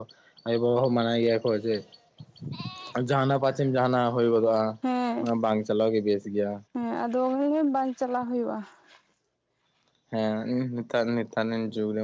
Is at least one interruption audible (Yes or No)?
No